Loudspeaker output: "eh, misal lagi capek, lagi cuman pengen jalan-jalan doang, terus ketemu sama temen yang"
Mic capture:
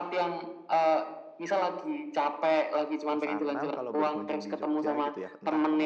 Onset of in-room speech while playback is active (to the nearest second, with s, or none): 3 s